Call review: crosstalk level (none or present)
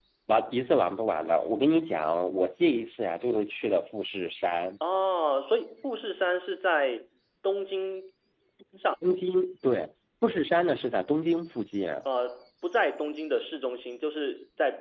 none